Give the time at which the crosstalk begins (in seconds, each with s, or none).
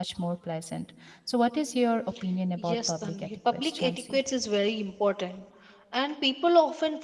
2.6 s